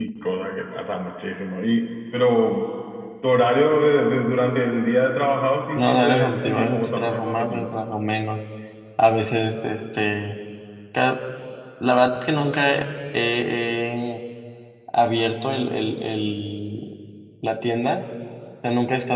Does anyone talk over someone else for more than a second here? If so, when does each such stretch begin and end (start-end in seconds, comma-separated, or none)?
5.8-7.7